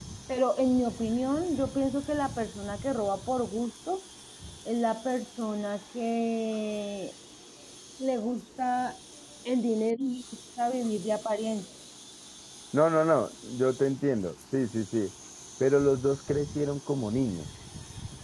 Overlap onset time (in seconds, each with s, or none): none